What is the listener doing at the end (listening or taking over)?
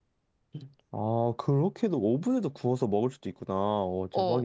taking over